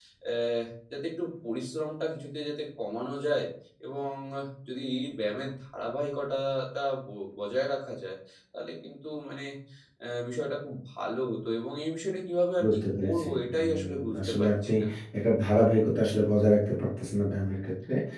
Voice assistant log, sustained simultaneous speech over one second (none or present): present